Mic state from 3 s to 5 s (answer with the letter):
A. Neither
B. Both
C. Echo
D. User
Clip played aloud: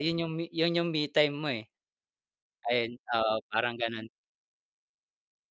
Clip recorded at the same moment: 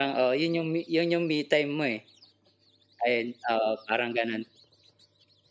C